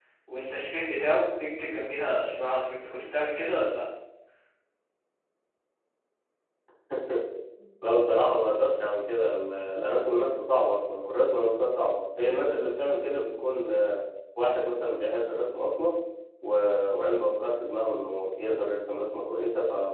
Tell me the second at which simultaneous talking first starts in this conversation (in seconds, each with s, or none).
none